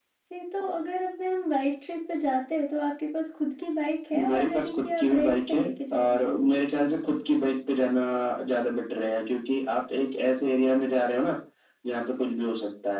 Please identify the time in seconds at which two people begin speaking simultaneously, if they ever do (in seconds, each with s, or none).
4.1 s